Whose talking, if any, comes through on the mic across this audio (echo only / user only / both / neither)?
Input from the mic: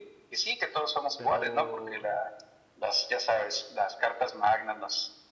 both